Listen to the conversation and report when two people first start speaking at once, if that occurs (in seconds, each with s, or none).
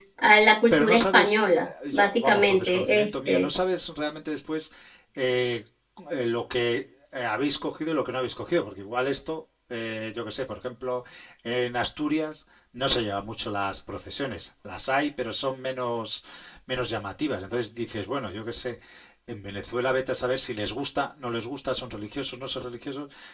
0.7 s